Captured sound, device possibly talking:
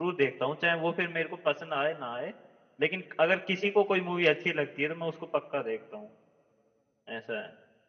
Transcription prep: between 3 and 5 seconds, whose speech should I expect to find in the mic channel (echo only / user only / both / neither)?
user only